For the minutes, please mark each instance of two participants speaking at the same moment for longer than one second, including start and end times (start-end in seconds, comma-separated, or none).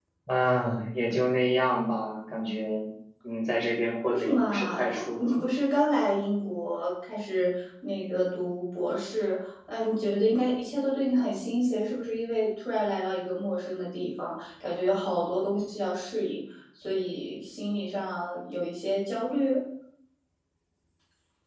4.0-5.4